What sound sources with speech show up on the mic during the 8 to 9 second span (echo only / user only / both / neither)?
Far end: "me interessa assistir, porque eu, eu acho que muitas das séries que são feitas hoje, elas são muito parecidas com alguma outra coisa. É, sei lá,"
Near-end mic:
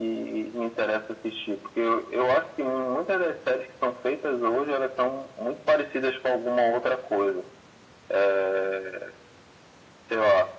echo only